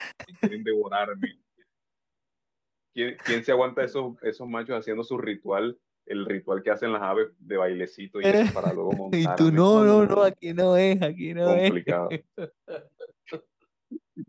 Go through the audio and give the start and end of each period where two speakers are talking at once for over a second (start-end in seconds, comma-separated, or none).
9.1-10.3